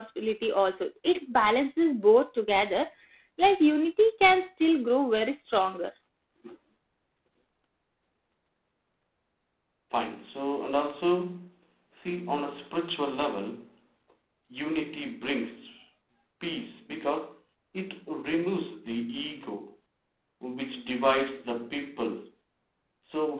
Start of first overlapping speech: none

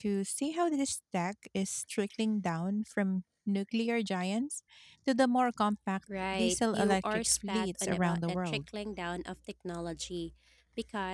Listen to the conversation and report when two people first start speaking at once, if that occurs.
6.1 s

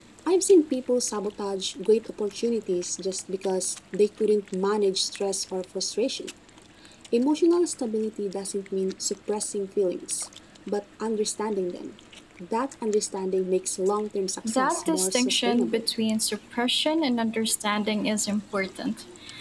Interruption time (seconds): 14.4 s

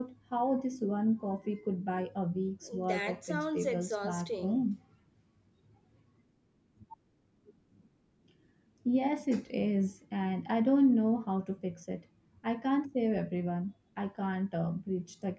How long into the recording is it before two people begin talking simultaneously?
2.6 s

